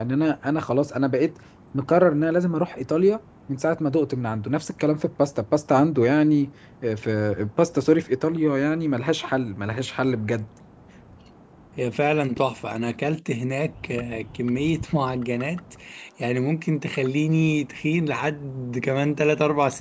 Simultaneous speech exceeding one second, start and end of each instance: none

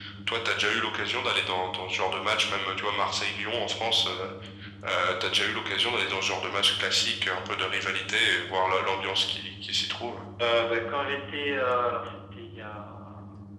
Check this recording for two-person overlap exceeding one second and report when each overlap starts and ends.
none

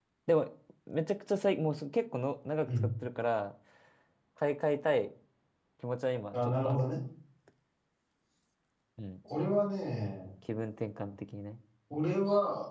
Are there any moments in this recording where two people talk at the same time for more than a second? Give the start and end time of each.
none

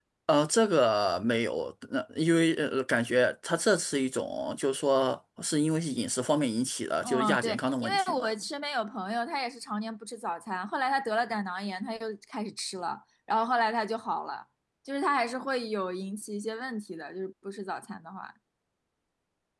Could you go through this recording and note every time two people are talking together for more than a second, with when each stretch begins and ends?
7.0-8.3

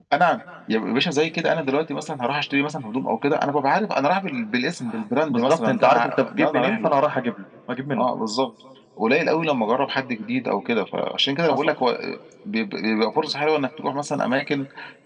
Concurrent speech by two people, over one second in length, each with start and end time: 5.3-6.9

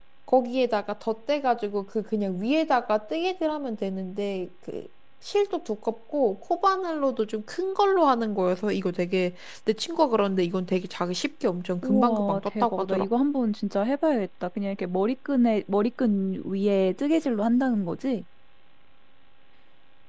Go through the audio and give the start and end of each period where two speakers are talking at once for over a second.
11.8-13.0

